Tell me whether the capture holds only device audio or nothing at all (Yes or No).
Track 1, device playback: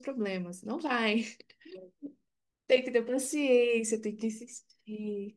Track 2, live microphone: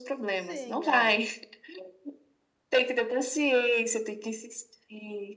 No